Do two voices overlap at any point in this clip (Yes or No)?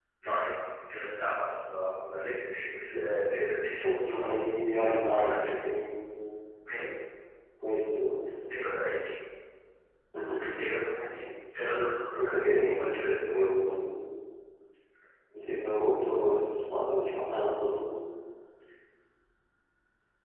Yes